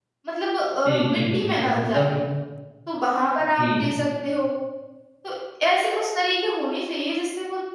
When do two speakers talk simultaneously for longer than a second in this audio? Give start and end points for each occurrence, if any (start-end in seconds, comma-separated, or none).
0.8-2.1